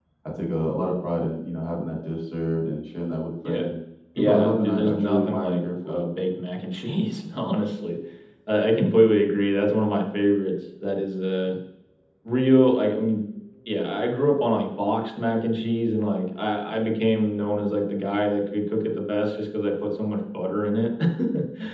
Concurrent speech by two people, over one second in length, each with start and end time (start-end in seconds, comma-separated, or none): 4.2-6.0